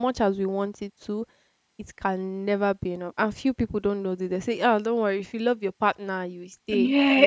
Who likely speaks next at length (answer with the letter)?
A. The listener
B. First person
A